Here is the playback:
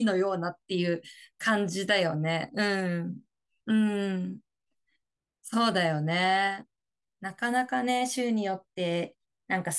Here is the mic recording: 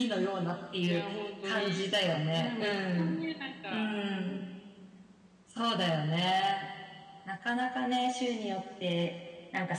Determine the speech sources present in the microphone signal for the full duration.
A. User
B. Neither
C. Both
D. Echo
C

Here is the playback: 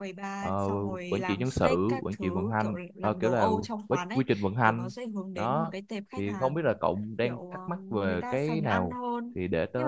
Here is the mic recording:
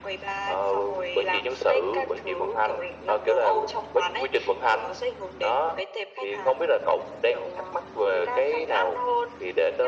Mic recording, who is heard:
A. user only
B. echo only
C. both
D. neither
B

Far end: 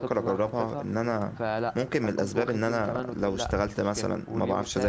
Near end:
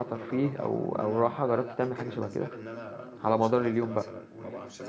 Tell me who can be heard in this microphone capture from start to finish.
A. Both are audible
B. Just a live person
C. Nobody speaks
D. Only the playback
A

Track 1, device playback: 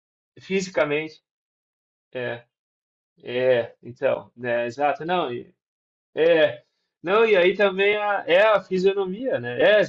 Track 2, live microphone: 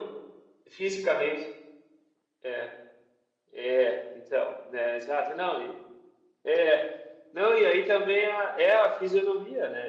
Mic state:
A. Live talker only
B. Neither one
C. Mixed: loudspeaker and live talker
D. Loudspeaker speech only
D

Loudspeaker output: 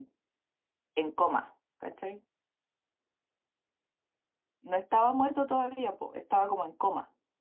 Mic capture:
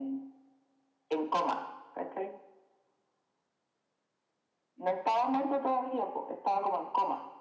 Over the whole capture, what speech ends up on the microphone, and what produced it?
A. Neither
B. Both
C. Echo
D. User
C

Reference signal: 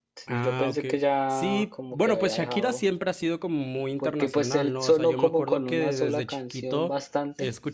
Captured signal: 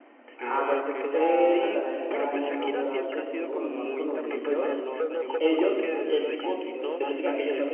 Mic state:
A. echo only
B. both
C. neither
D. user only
B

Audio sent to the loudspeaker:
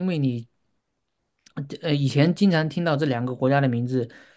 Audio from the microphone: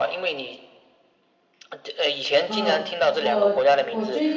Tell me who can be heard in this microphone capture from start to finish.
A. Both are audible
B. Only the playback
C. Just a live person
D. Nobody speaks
A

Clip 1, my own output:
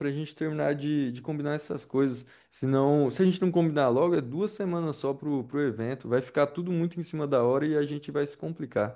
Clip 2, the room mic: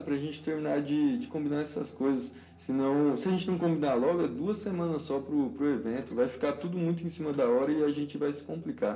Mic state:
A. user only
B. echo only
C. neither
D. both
B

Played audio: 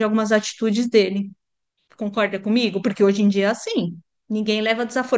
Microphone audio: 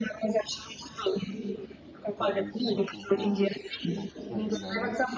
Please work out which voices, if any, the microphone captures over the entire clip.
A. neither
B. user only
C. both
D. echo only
C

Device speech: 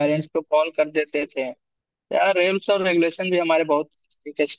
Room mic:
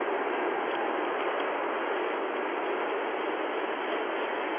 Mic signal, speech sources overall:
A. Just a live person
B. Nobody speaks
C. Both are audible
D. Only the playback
B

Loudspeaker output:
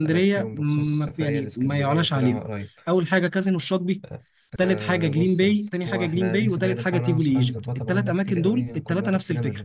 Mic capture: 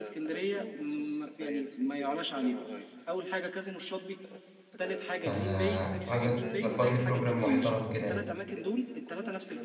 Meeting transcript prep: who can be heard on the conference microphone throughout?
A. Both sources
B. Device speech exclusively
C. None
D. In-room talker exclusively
A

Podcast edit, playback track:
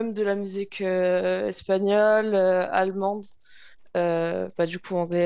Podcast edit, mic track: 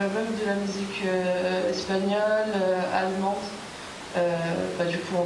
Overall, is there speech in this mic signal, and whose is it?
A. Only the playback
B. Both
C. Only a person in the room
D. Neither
A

